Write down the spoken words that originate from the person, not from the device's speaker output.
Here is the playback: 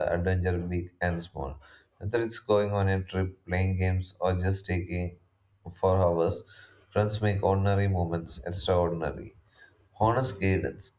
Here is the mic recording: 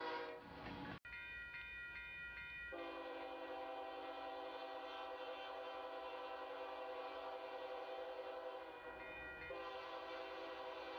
none

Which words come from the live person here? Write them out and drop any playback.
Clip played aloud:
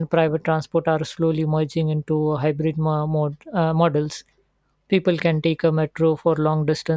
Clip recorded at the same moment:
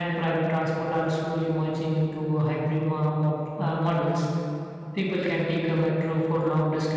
none

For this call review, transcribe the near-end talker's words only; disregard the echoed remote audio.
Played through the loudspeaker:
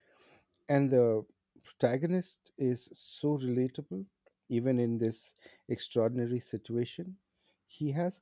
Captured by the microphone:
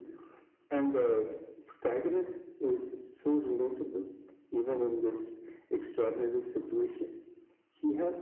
none

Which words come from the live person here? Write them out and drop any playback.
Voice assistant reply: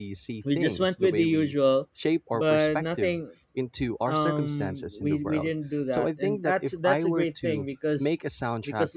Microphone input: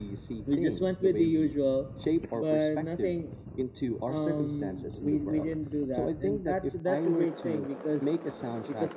none

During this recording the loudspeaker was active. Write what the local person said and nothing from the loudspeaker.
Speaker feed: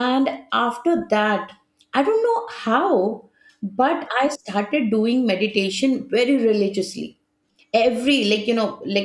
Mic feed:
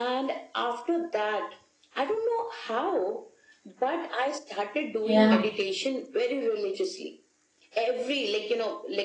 yeah,

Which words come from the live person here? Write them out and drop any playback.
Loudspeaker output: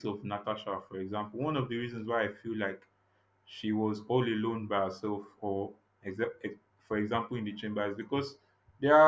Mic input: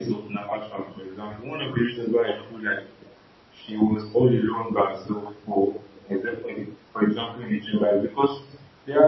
none

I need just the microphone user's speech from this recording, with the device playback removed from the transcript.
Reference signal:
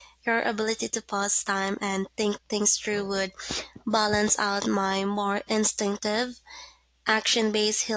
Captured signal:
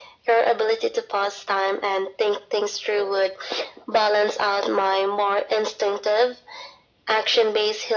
none

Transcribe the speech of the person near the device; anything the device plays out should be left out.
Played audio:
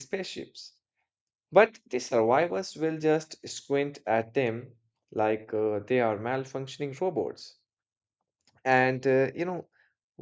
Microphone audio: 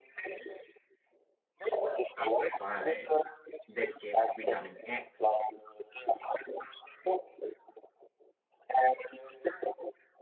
It's fine, this gives vitamin X,

